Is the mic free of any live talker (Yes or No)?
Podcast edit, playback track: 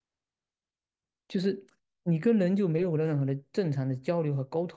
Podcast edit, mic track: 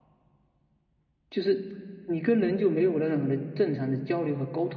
Yes